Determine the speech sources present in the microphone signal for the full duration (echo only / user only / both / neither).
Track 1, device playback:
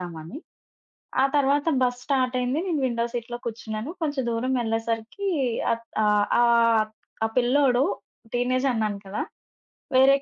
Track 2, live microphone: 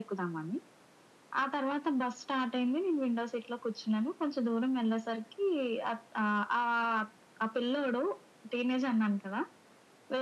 echo only